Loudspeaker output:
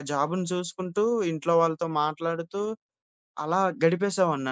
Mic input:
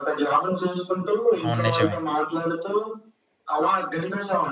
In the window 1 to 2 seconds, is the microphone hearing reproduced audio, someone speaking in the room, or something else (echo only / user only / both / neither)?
both